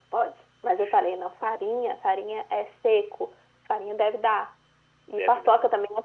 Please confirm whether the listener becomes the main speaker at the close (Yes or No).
No